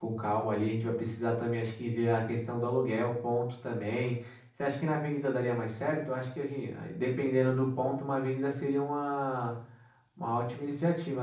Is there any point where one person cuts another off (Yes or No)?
No